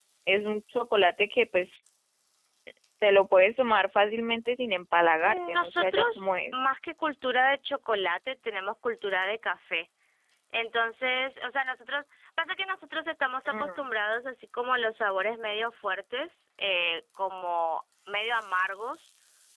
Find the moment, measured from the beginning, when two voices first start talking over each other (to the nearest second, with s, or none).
5 s